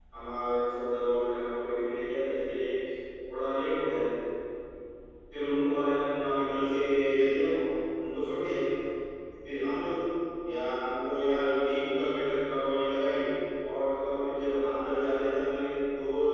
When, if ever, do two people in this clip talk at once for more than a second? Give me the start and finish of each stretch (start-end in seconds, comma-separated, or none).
none